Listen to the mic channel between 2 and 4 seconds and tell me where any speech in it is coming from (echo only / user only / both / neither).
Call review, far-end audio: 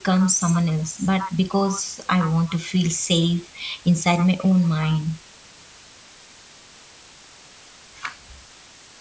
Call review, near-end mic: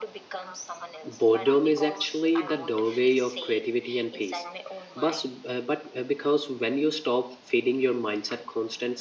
both